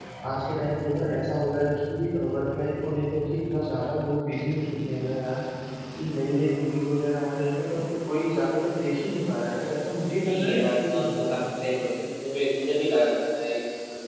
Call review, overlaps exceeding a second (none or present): present